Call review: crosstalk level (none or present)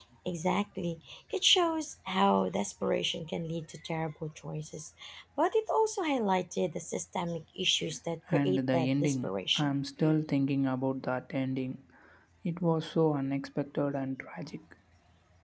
present